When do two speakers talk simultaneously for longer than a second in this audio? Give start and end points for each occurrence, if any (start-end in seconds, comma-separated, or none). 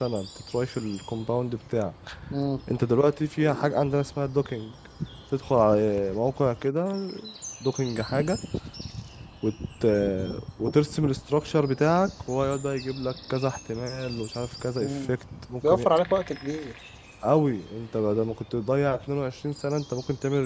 none